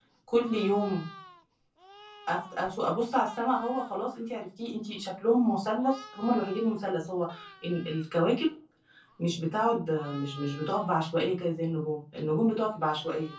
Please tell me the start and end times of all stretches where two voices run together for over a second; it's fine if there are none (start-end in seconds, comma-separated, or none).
none